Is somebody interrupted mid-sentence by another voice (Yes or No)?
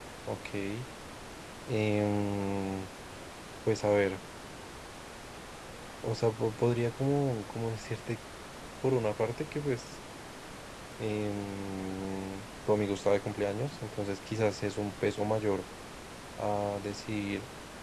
No